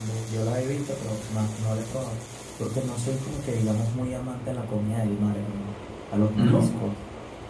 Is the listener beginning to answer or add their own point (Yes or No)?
No